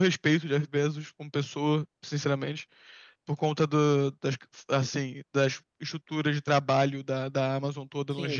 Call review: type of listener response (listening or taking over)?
taking over